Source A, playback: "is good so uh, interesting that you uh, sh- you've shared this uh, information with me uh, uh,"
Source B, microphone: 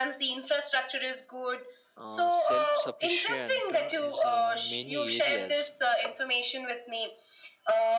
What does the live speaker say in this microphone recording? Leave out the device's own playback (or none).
uh, self-sufficient uh, is uh, many areas